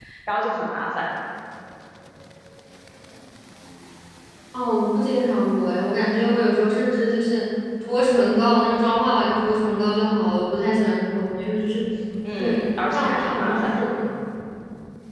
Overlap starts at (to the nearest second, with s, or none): 12 s